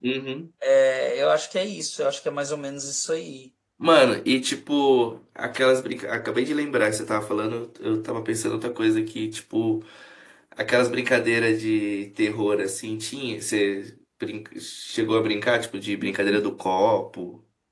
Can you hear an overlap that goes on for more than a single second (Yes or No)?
No